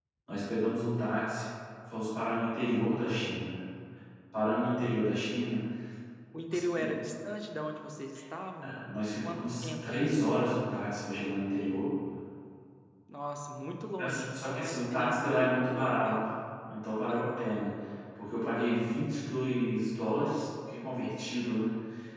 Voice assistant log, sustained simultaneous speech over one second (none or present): present